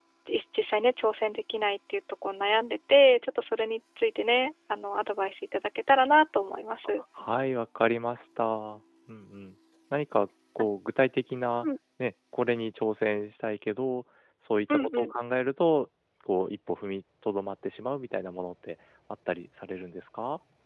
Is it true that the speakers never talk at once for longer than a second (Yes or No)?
Yes